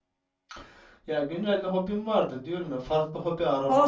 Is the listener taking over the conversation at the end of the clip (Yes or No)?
Yes